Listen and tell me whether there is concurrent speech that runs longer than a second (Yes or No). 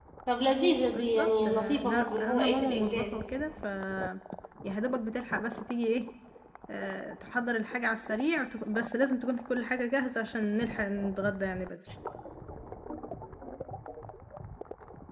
Yes